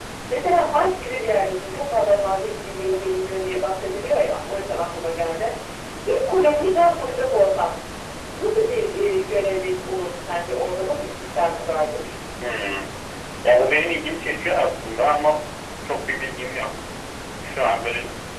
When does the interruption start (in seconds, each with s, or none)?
none